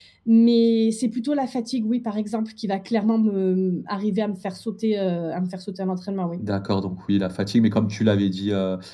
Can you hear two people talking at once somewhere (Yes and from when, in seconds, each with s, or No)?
No